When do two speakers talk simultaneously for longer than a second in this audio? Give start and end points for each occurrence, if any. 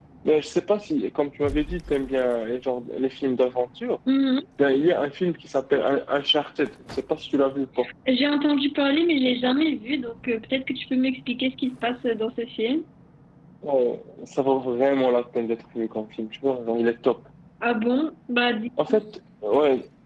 none

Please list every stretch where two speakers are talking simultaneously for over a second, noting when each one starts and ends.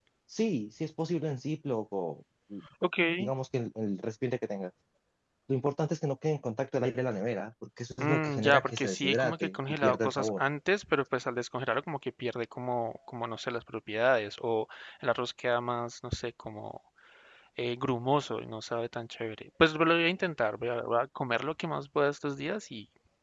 8.0-10.4

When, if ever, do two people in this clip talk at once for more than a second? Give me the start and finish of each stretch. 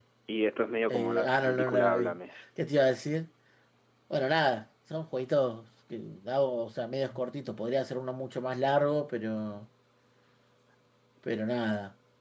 0.9-2.2

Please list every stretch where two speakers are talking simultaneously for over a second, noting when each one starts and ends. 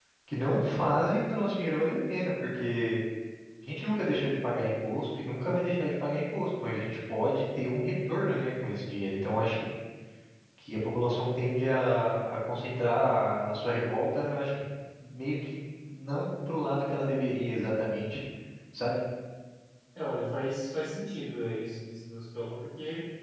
none

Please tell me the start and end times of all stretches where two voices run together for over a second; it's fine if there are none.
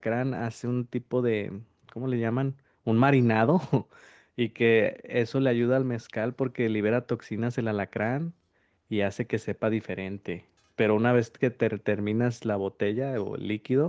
none

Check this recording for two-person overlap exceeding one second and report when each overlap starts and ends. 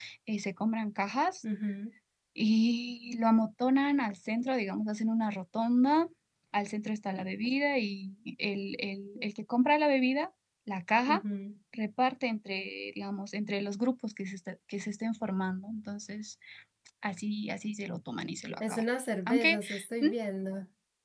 none

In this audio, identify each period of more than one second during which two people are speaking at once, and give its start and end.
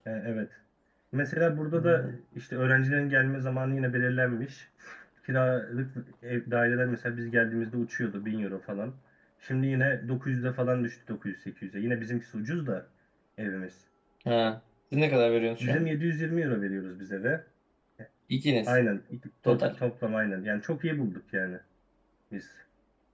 none

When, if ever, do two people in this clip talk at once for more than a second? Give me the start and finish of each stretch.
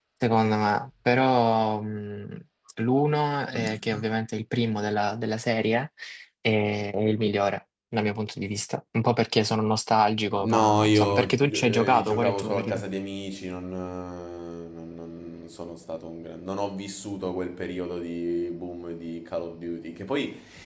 10.4-12.8

